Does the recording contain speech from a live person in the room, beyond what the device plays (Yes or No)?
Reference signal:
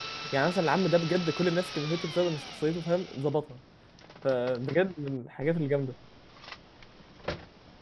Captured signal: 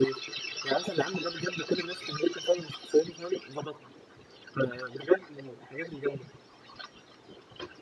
No